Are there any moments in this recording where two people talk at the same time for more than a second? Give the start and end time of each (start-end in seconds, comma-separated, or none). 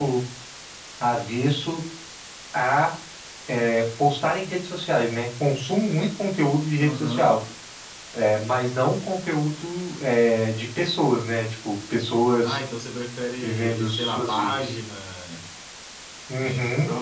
13.4-14.8